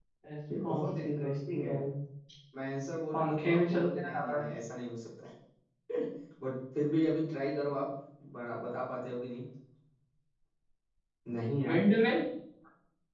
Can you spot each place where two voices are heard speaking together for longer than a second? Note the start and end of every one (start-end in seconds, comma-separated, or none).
0.5-1.7, 3.1-4.3